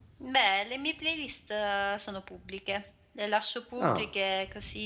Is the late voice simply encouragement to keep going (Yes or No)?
Yes